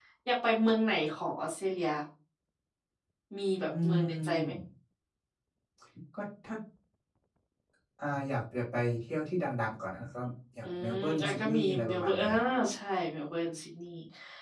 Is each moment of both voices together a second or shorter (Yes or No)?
No